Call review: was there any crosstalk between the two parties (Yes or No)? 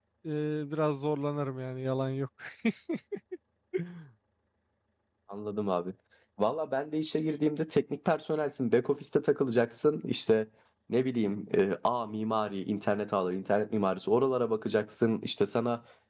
No